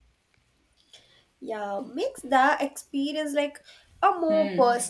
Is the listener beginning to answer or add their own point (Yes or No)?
Yes